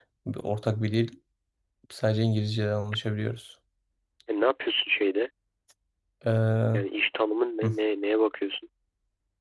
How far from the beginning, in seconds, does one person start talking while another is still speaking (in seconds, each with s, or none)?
none